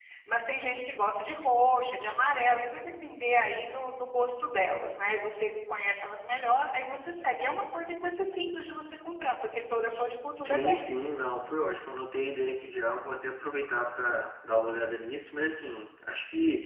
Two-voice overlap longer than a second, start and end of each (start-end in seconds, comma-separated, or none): none